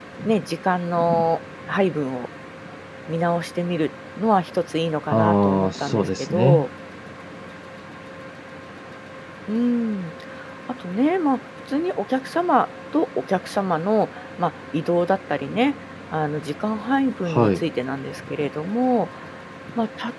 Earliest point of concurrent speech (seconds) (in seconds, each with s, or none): 5.1 s